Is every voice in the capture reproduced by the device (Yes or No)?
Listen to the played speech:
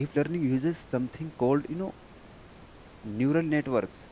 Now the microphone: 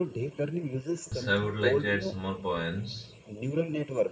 No